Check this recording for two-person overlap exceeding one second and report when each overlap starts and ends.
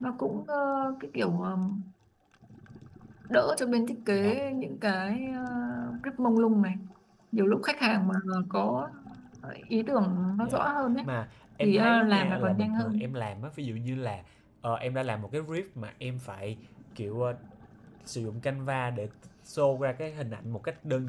11.6-13.1

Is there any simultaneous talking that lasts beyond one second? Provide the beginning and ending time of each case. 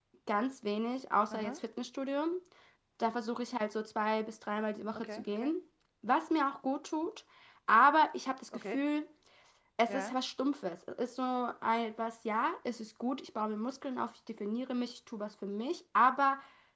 none

